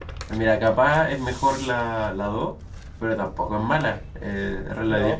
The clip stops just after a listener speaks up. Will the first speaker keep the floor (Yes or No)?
No